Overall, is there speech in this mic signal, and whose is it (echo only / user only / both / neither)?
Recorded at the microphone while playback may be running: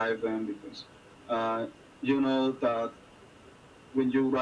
echo only